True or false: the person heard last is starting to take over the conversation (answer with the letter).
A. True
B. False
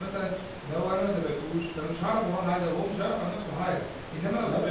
B